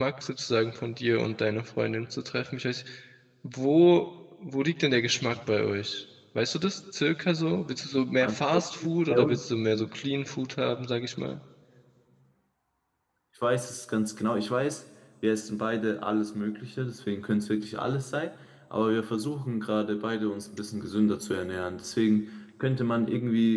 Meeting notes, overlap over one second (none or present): none